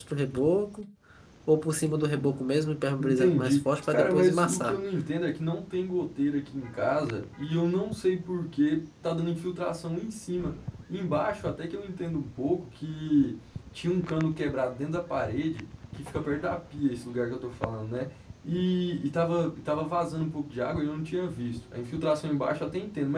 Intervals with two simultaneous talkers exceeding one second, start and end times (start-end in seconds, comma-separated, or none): 3.0-4.8